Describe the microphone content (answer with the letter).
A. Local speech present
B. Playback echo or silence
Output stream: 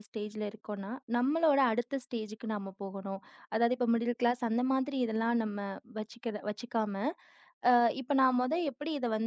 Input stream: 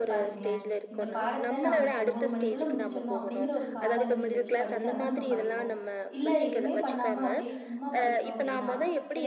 A